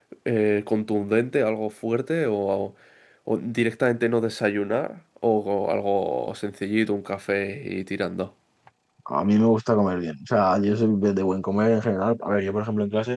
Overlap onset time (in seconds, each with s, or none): none